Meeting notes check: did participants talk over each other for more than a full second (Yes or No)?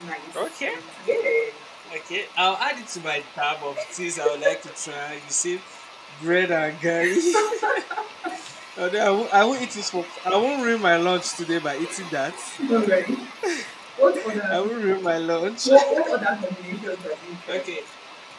No